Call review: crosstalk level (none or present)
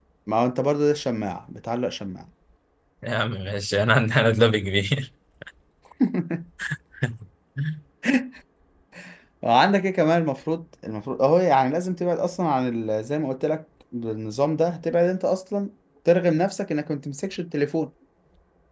none